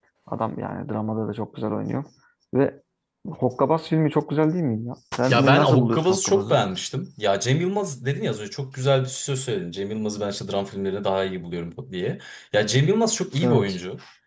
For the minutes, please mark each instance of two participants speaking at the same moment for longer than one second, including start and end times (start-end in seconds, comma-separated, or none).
5.3-6.6